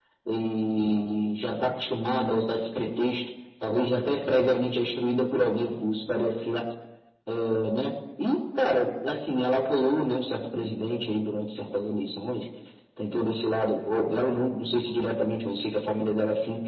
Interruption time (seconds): none

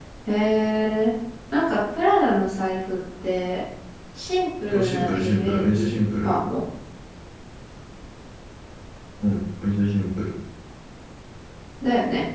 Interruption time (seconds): 4.6 s

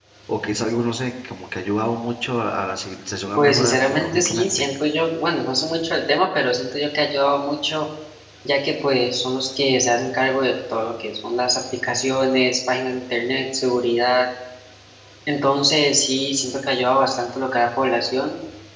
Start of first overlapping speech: 3.4 s

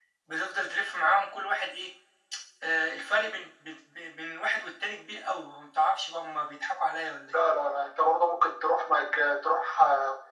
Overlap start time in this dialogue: none

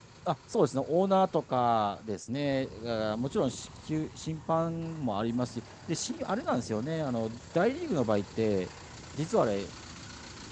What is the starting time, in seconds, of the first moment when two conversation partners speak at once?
none

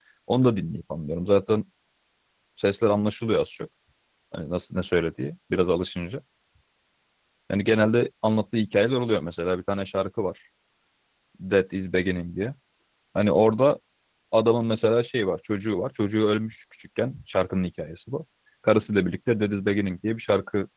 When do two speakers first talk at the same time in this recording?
none

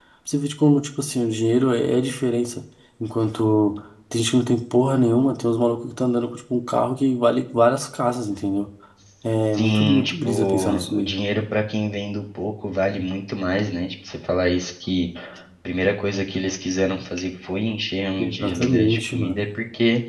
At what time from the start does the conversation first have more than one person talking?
9.5 s

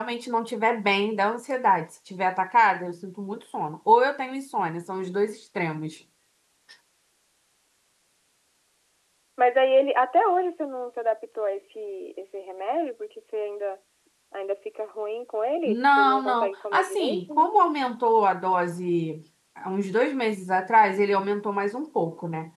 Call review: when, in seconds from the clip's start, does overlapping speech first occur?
15.7 s

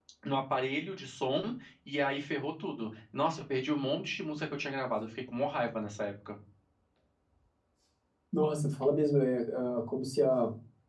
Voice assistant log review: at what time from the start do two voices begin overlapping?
none

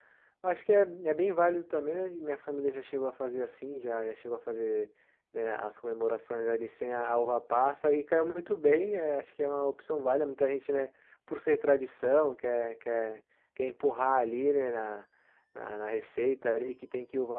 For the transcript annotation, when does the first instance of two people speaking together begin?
none

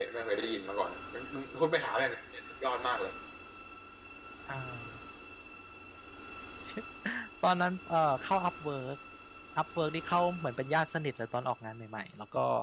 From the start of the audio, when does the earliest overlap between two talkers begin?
none

